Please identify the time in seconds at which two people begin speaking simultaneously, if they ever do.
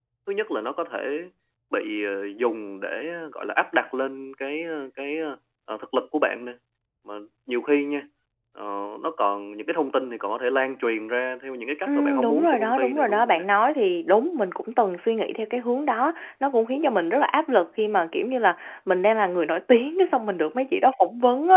11.9 s

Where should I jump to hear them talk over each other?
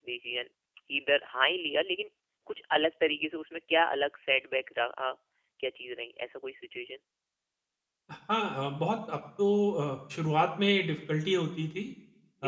none

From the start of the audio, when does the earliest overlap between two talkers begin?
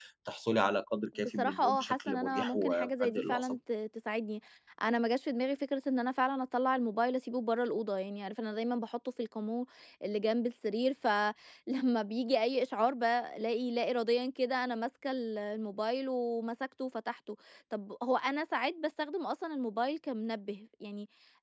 1.4 s

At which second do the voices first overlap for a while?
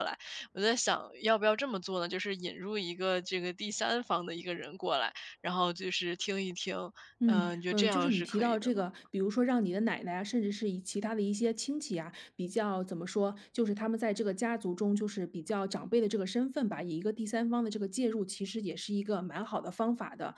7.3 s

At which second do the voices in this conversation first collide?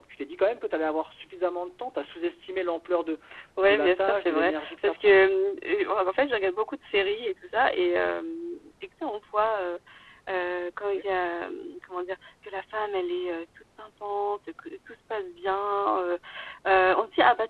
3.6 s

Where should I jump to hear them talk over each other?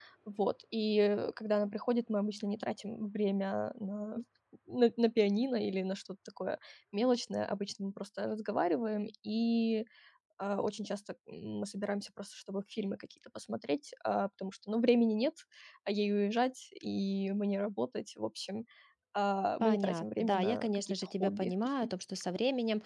19.6 s

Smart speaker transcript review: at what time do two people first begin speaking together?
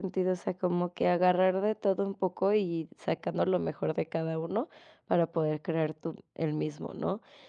none

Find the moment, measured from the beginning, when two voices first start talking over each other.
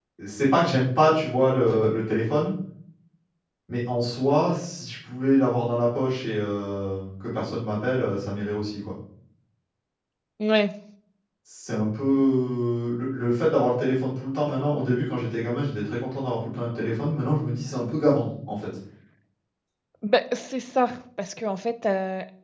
none

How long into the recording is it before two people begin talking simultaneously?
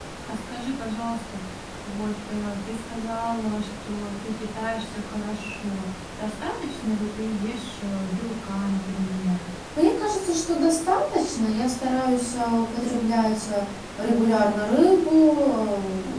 none

